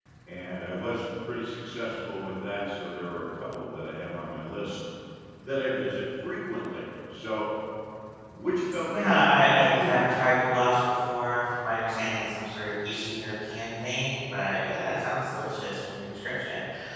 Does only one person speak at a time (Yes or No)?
No